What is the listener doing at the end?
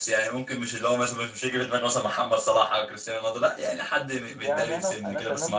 taking over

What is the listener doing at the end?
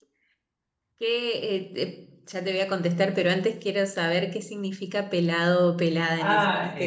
taking over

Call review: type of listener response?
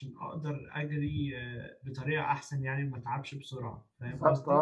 taking over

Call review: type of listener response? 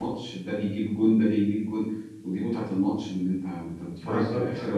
listening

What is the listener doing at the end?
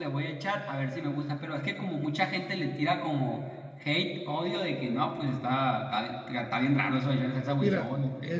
taking over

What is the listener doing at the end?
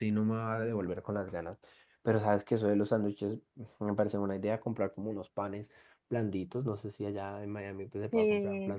listening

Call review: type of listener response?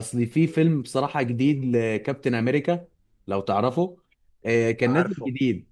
listening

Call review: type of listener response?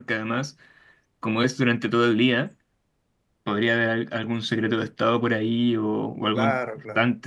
taking over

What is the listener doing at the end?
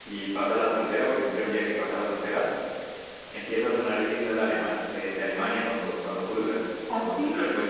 listening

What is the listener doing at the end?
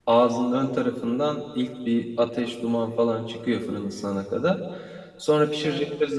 listening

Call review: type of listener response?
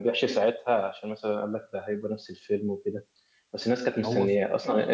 listening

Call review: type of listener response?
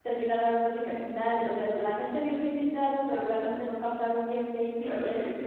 taking over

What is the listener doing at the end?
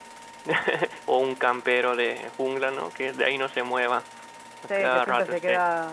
taking over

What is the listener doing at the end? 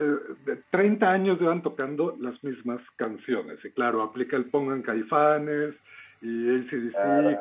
listening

